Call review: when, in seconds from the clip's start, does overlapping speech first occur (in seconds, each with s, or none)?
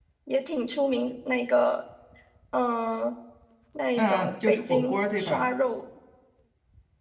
4.0 s